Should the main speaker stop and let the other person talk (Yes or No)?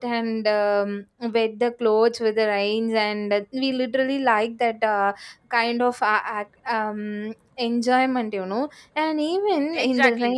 Yes